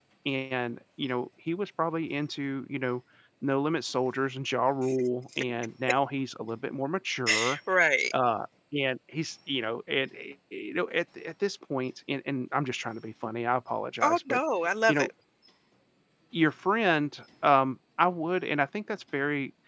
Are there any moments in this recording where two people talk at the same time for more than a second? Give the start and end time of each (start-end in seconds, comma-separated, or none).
none